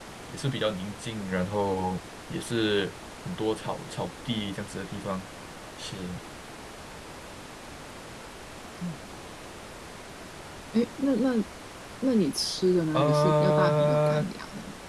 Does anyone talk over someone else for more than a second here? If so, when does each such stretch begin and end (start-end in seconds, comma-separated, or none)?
12.9-14.2